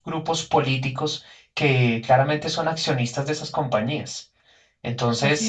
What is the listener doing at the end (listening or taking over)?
listening